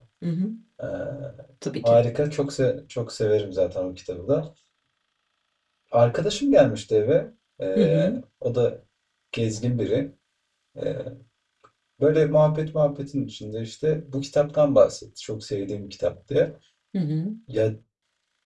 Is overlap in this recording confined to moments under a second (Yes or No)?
Yes